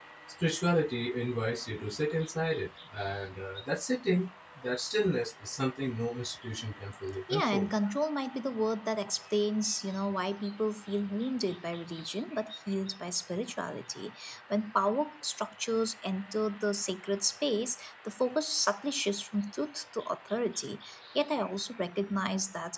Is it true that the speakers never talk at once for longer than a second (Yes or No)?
Yes